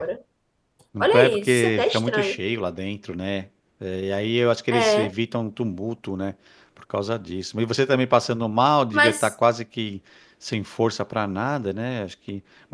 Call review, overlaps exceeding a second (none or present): present